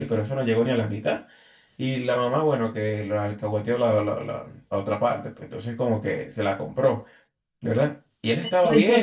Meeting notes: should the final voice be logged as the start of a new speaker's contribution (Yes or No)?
Yes